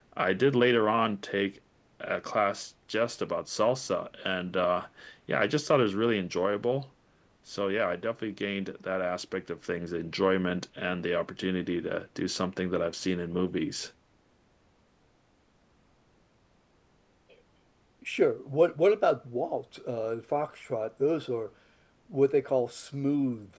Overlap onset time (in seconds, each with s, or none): none